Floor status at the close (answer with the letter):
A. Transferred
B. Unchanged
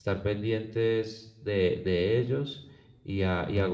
B